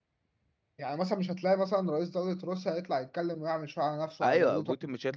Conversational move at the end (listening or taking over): taking over